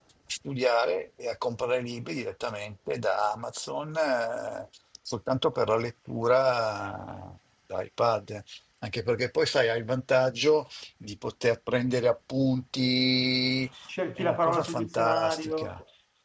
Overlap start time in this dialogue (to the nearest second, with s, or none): 14 s